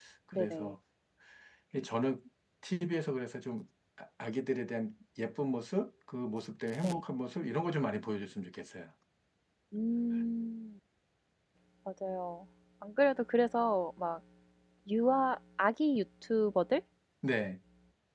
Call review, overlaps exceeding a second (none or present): none